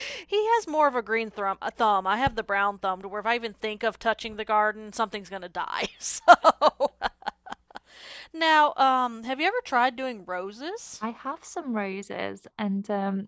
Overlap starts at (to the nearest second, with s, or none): none